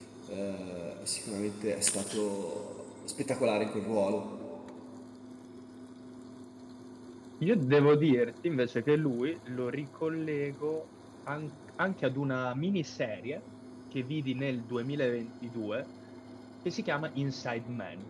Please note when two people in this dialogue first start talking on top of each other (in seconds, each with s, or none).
none